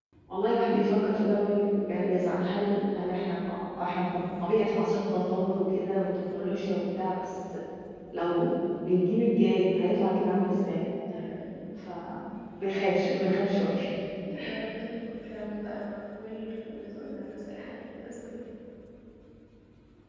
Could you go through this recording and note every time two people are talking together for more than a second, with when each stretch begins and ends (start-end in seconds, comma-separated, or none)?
none